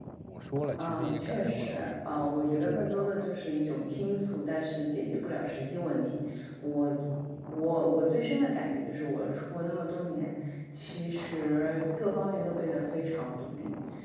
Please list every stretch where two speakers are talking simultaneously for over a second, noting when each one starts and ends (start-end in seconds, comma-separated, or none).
0.8-3.3